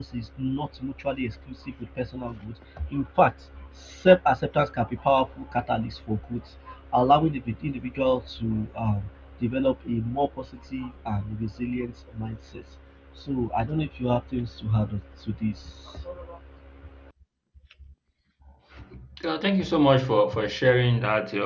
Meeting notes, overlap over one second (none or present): none